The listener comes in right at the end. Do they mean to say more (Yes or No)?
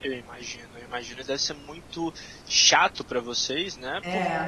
No